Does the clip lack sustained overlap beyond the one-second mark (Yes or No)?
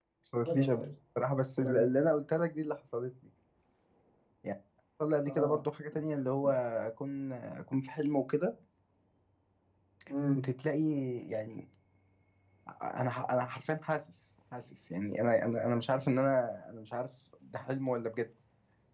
Yes